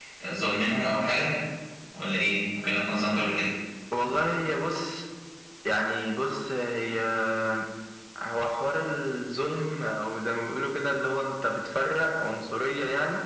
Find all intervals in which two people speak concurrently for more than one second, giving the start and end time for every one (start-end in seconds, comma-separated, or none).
none